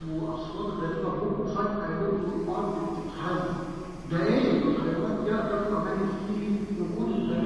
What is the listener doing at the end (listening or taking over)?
taking over